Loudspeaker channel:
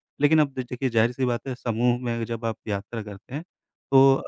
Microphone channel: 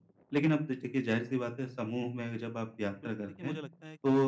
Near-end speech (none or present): present